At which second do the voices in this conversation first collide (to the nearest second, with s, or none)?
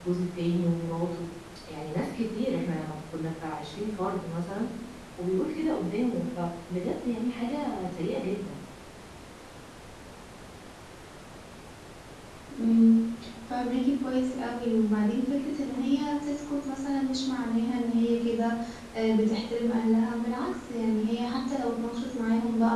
none